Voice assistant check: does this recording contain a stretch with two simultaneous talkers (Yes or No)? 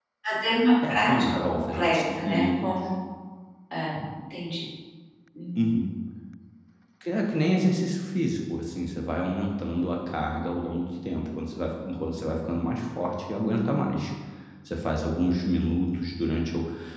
Yes